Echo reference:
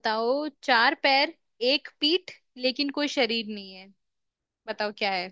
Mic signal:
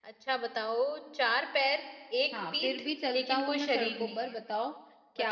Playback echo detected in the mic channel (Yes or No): Yes